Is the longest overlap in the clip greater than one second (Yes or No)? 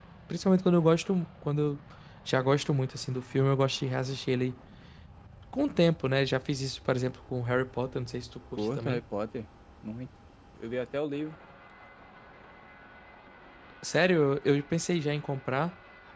No